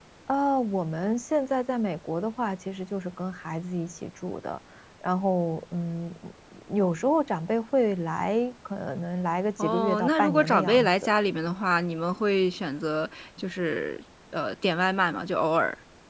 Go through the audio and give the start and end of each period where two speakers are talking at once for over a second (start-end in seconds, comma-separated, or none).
9.6-11.1